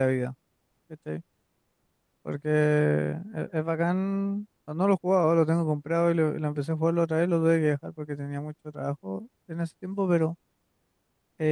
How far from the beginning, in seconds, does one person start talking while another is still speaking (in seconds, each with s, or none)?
none